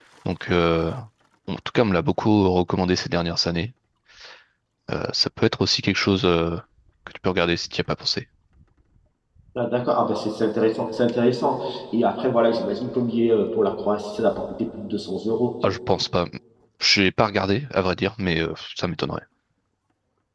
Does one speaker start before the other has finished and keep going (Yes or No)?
No